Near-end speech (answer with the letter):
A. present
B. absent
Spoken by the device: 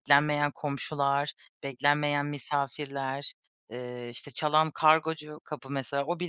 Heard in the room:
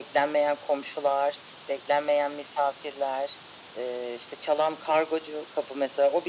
B